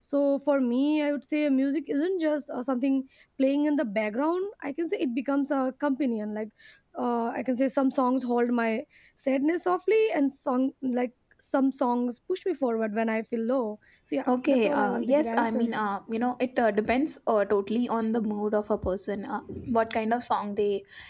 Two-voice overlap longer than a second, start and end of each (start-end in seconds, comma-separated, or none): 14.5-15.7